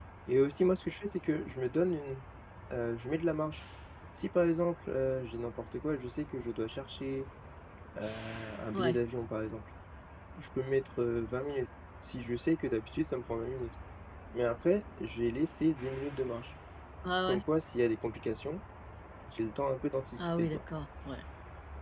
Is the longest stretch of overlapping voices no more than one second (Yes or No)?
Yes